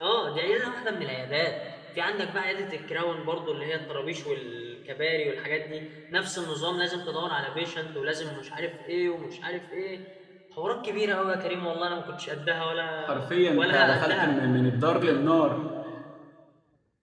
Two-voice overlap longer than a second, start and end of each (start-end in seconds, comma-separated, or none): 13.1-14.4